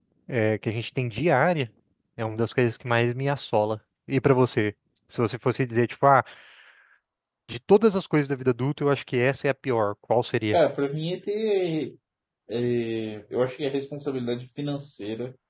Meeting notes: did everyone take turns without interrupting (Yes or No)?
Yes